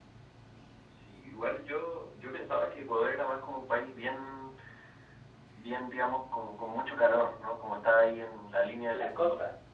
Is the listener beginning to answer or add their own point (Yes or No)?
Yes